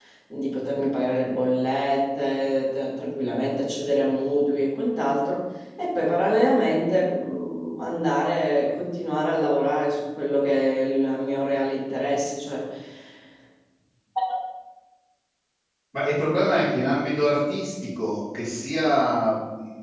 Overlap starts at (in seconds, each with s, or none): none